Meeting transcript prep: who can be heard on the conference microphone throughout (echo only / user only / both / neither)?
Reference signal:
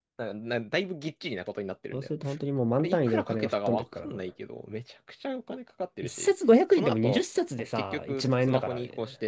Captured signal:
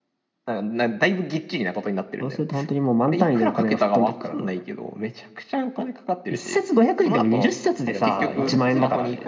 both